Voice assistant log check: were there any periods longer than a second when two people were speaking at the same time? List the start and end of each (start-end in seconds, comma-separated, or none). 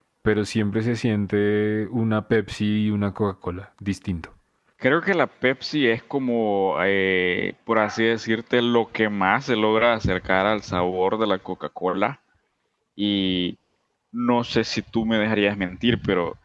none